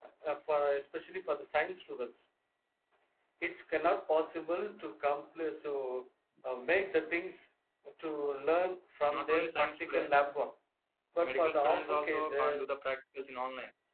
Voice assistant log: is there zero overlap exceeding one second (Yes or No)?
No